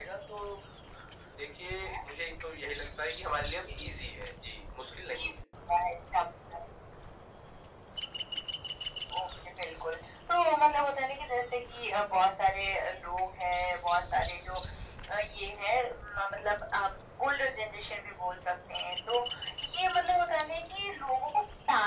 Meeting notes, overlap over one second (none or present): none